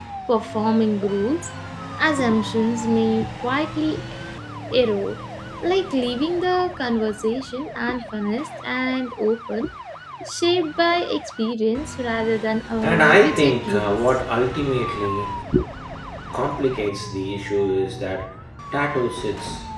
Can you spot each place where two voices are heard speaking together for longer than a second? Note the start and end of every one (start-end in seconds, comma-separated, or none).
12.8-14.2